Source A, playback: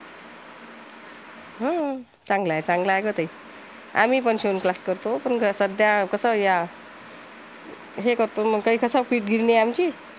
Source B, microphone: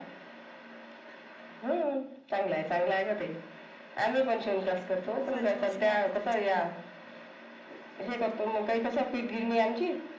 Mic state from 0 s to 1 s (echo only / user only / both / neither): neither